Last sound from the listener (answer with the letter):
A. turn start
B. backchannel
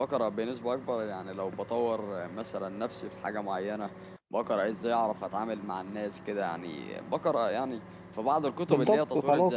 A